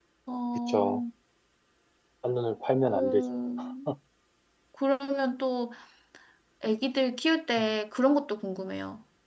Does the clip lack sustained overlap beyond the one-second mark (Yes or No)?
Yes